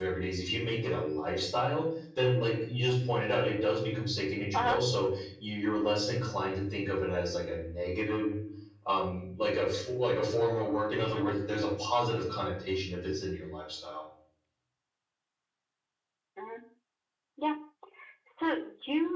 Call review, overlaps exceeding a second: none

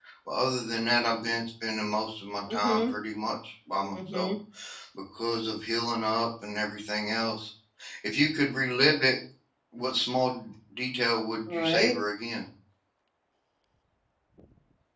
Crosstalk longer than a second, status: none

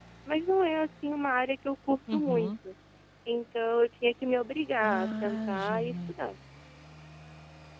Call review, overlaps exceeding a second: present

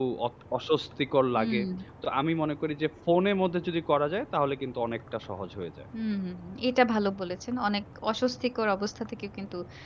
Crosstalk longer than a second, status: none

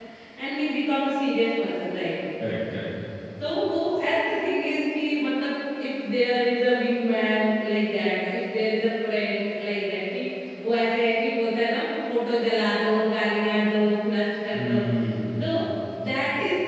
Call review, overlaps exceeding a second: none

